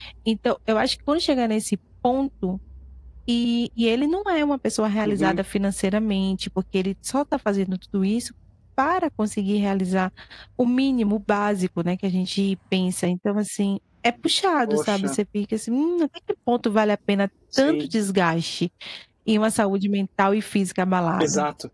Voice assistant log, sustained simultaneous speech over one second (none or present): none